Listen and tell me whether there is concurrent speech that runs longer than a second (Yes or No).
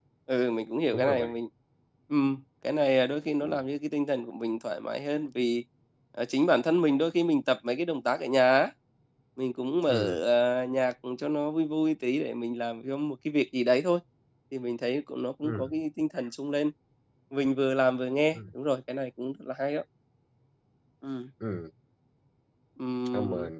No